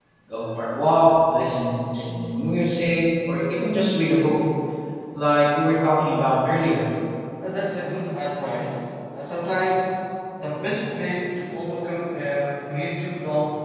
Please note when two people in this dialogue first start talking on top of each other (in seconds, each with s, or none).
none